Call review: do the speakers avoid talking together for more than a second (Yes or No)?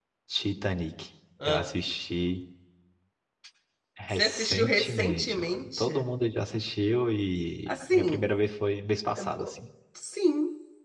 No